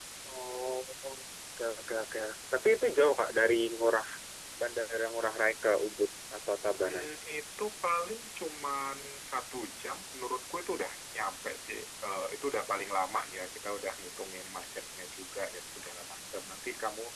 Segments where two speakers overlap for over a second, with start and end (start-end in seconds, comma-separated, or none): none